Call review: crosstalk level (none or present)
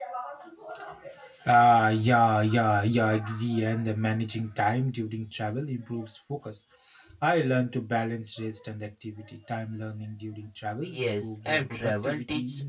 present